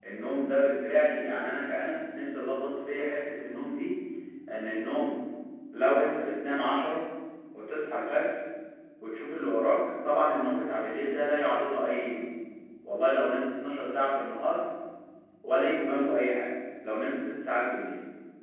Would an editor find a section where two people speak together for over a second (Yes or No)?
No